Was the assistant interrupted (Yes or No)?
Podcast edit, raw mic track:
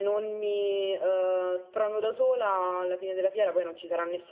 Yes